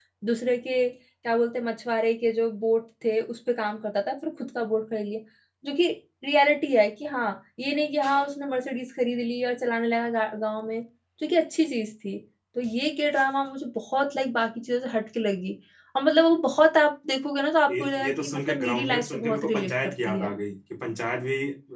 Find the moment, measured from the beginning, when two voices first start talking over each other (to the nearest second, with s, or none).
18 s